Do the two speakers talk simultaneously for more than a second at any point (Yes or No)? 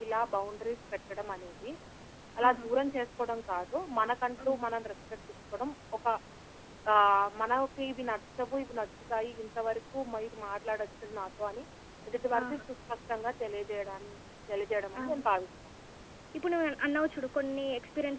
No